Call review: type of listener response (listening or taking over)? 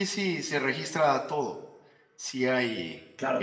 taking over